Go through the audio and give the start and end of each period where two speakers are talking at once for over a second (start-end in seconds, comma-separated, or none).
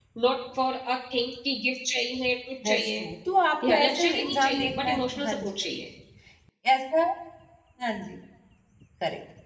3.7-5.5